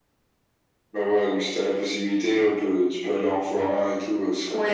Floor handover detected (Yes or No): Yes